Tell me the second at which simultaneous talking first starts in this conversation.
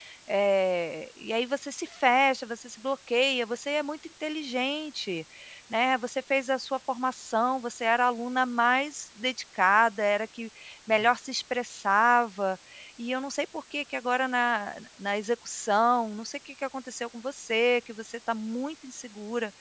none

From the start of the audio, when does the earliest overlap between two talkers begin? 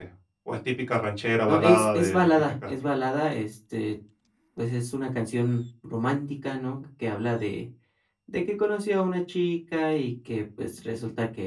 1.5 s

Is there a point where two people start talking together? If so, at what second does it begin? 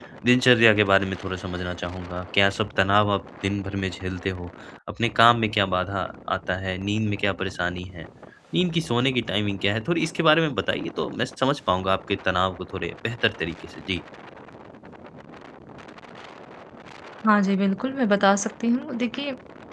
none

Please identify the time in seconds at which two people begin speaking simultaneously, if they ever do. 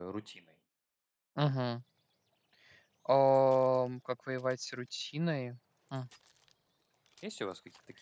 none

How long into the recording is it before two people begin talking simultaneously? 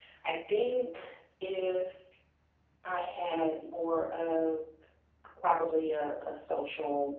none

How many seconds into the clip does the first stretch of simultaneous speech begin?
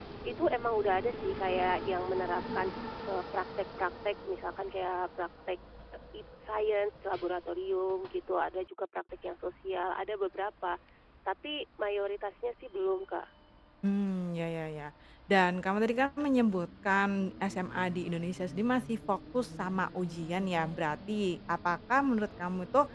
none

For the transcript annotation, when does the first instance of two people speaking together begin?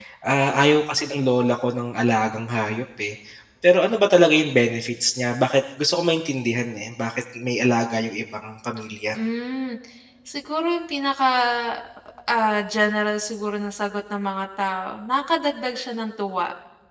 none

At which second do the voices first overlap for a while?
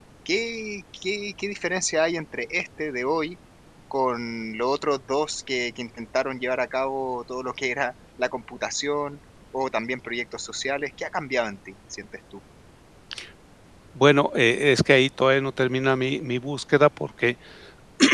none

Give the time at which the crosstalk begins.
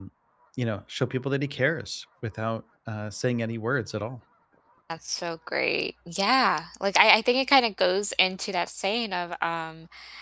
none

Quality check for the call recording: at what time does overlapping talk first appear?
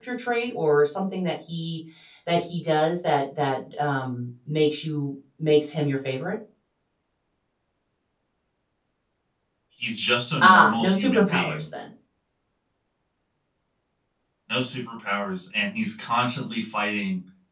10.4 s

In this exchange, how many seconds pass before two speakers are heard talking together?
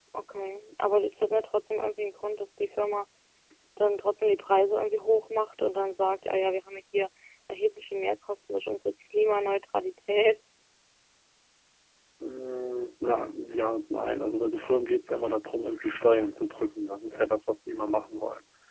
none

